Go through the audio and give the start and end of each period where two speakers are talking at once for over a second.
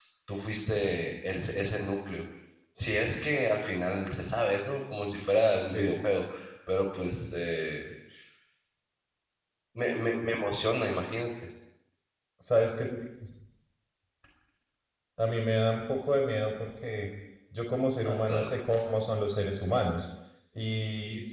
none

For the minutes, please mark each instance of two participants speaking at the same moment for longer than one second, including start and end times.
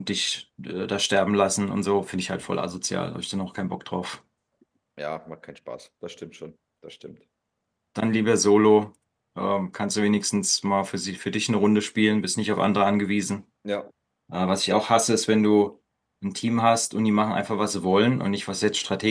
none

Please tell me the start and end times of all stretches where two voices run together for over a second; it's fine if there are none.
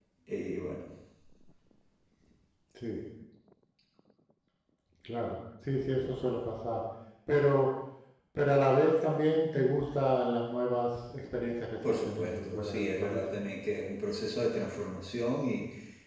12.1-13.4

